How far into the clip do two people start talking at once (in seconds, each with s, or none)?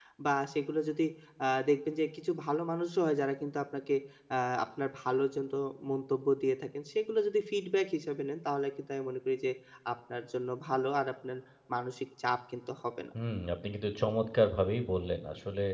none